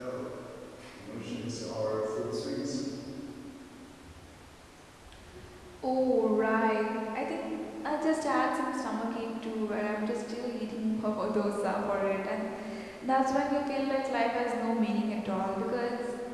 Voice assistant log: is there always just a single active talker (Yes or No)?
Yes